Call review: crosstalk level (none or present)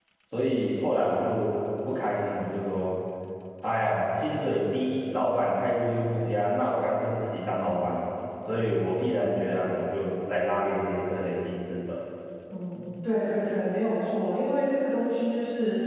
none